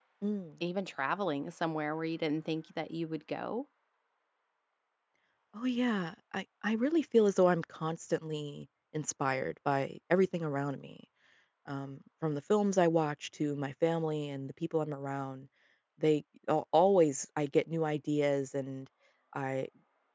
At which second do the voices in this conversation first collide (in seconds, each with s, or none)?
none